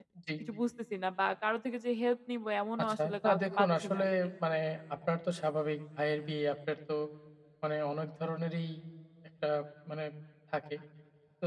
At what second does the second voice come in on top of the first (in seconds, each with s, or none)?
2.8 s